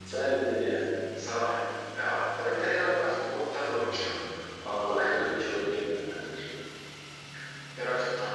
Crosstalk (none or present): none